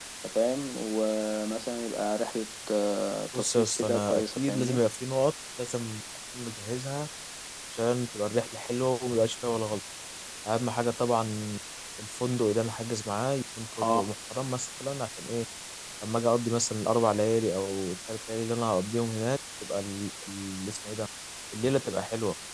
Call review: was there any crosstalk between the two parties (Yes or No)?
Yes